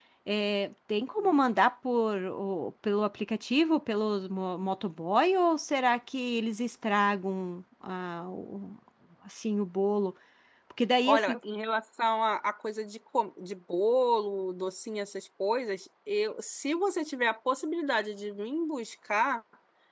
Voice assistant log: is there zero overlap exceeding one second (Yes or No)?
Yes